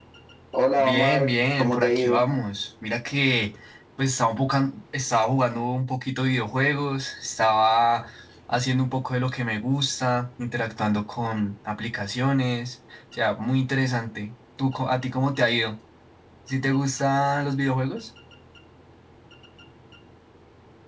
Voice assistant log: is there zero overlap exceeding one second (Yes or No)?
No